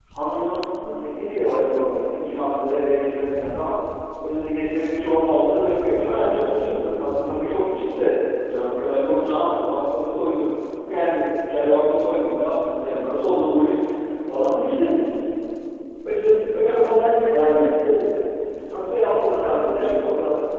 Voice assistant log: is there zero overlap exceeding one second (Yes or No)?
No